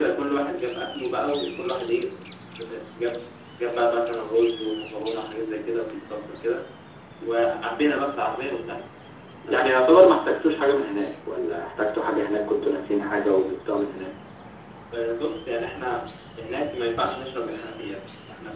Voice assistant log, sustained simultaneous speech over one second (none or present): none